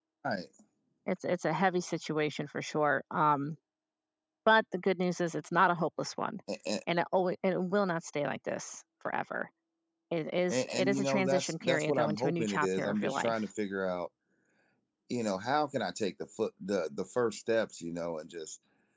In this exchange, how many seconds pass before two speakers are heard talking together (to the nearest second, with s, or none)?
11 s